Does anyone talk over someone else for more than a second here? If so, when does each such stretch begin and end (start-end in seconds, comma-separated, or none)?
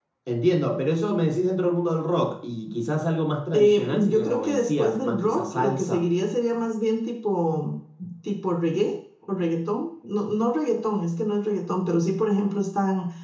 3.5-6.0